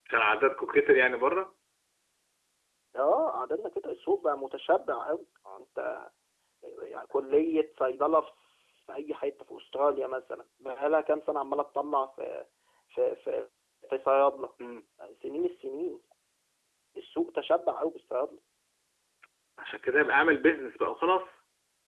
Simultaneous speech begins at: none

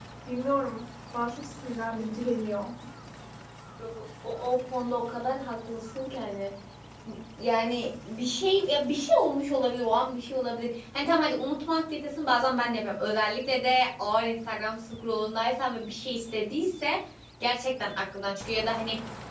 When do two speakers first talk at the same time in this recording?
none

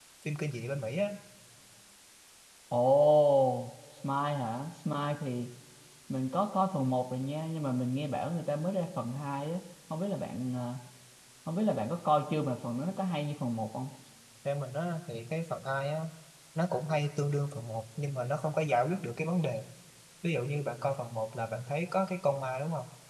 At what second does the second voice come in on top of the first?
none

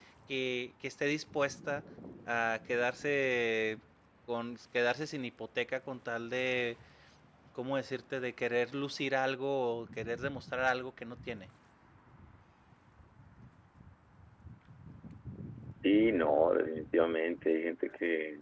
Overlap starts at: none

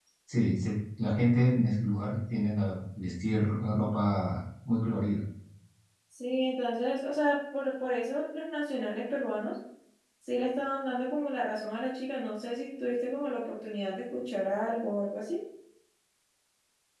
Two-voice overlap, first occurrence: none

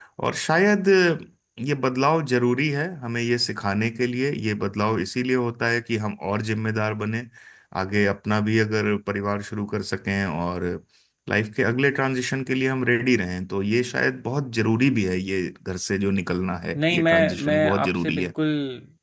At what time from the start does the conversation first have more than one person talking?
16.7 s

